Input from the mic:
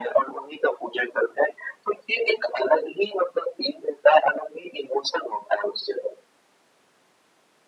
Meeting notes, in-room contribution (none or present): none